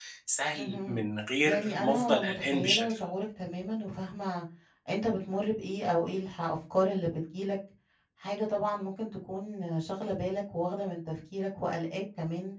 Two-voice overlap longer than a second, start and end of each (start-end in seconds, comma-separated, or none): 1.4-3.0